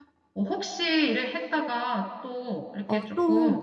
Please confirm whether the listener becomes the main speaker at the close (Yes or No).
Yes